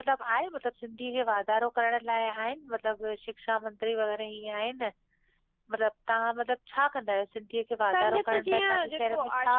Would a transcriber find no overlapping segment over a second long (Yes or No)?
No